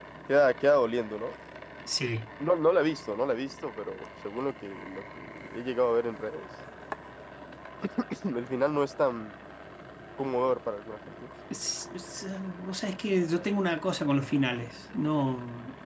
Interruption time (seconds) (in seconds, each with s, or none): none